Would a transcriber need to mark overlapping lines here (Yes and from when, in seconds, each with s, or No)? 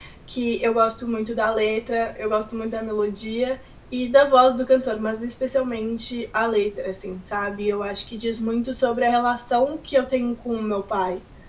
No